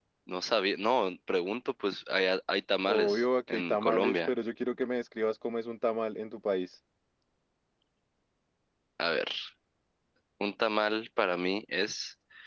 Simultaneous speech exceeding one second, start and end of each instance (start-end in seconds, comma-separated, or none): 2.9-4.3